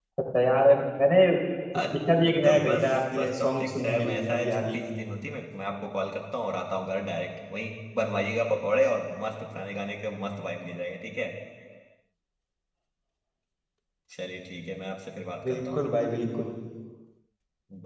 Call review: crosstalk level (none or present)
present